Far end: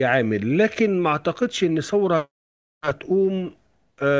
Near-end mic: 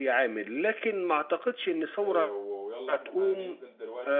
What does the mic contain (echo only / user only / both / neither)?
both